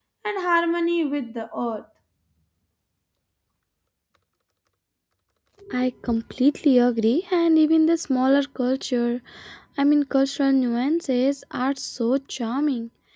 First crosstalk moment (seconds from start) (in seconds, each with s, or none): none